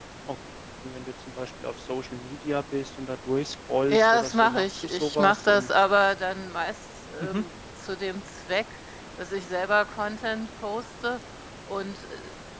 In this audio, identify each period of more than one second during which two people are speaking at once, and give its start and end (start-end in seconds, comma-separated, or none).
3.9-5.7